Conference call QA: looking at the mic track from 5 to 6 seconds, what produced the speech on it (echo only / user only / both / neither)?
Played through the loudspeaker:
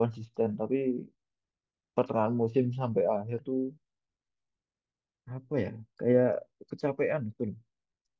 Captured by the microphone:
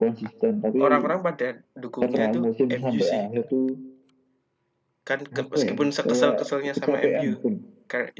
both